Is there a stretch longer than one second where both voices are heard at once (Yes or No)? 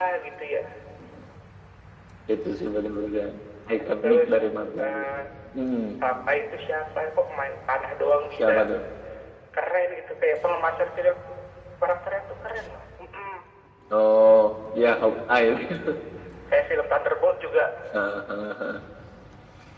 No